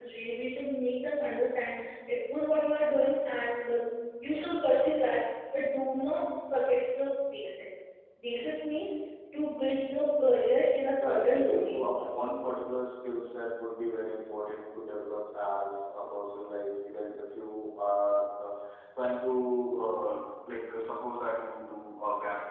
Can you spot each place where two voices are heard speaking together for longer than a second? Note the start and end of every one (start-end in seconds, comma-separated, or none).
10.9-12.1